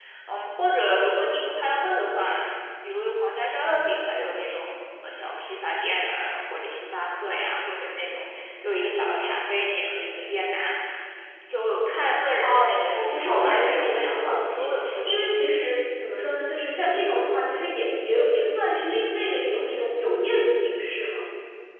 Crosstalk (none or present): present